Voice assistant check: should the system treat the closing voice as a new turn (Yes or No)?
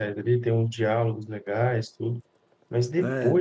No